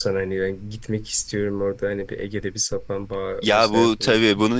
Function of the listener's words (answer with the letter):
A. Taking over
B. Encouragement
A